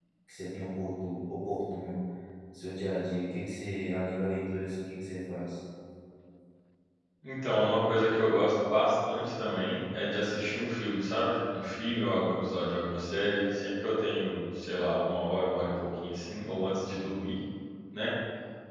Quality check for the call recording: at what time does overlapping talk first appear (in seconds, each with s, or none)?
none